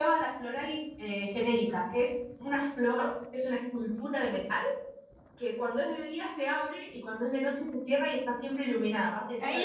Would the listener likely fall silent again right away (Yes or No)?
No